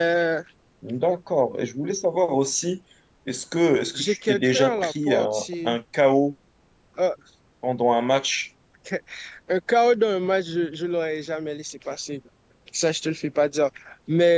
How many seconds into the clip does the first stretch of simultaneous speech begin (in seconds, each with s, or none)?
3.9 s